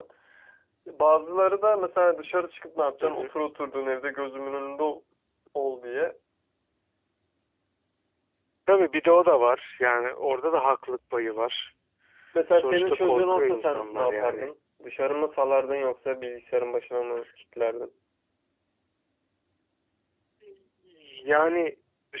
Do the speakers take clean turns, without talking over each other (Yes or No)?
No